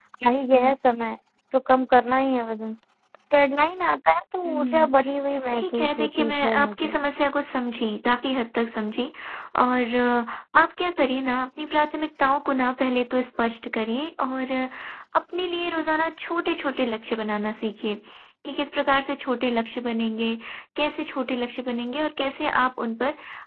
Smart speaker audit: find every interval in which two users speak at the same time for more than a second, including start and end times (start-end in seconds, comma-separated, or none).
5.5-7.0